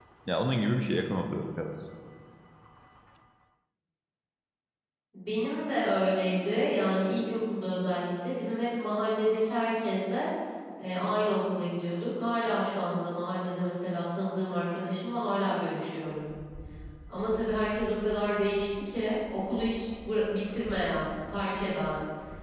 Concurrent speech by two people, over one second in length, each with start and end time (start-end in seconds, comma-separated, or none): none